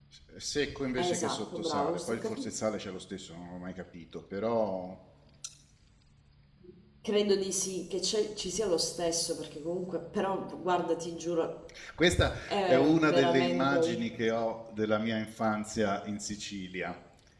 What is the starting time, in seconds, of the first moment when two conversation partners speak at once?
1.0 s

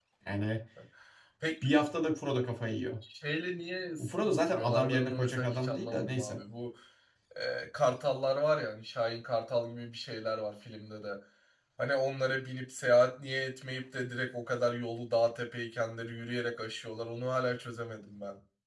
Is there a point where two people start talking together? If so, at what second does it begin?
4.0 s

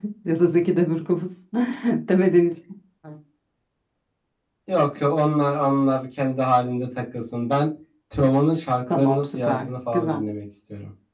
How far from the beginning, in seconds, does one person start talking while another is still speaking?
8.9 s

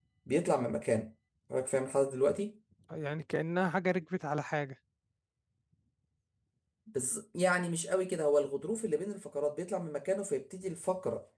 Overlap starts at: none

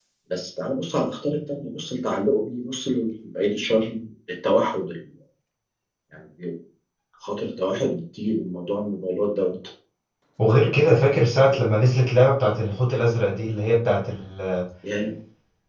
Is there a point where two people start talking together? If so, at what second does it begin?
none

